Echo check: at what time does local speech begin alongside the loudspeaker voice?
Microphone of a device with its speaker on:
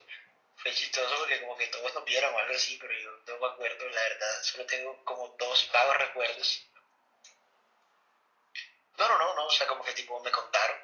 none

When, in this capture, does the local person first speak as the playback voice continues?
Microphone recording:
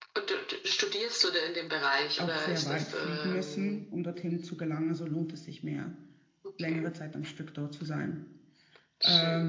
2 s

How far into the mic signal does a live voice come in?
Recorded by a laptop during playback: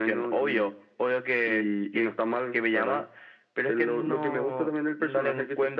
none

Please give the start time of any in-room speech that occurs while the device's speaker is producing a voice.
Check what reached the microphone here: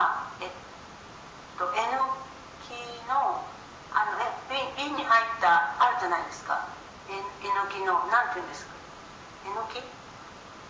none

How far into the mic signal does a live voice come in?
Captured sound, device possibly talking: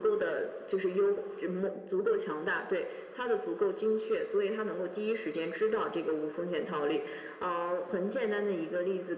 none

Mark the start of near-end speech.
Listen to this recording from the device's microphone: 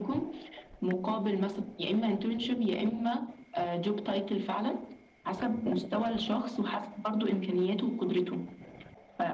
none

